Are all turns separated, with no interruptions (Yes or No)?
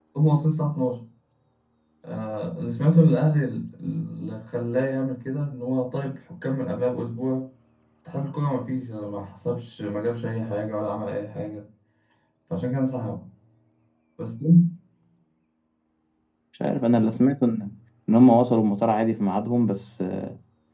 Yes